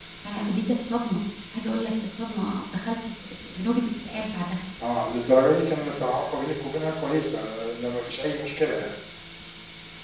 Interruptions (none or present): none